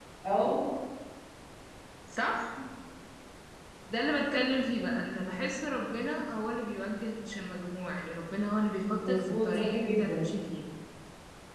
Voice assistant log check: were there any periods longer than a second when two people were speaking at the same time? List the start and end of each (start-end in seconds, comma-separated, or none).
9.0-10.2